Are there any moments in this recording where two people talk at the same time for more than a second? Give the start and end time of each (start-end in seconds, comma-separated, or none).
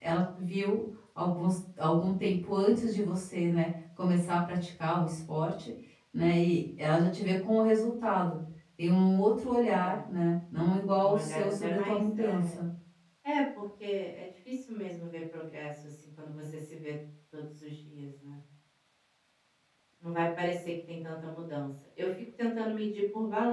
11.0-12.6